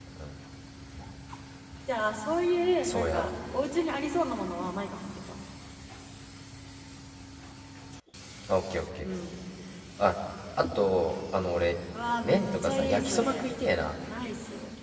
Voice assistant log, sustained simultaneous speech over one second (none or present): present